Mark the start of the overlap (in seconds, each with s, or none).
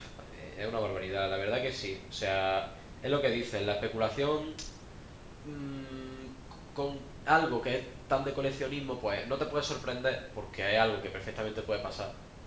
none